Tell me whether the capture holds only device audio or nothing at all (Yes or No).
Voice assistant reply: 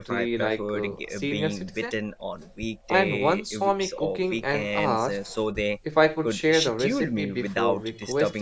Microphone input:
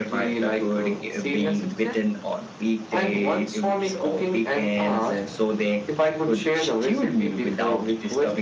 Yes